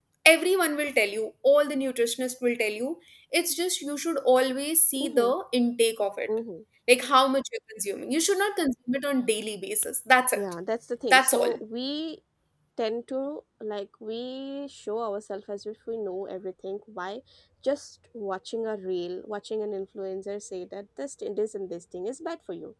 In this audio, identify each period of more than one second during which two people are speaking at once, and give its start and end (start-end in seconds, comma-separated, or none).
none